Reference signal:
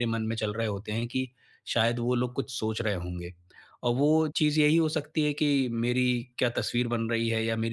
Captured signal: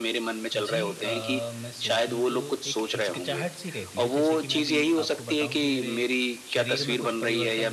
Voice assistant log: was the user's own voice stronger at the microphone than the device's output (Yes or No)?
No